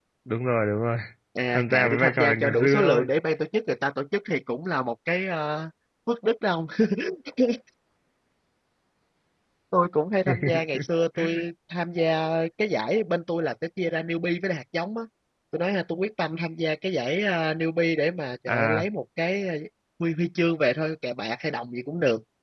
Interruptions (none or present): present